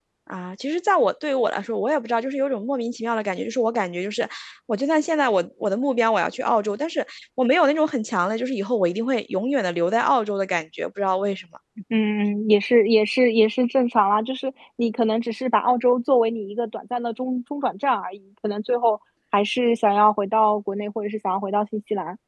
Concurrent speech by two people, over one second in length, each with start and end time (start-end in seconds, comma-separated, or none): none